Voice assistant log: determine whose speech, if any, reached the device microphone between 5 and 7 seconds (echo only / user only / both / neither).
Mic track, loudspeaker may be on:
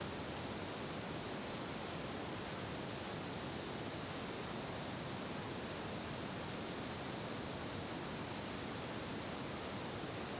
neither